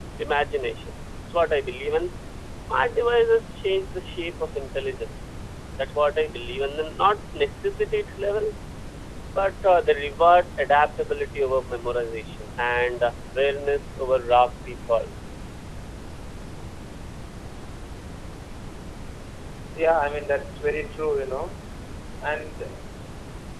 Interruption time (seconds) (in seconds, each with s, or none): none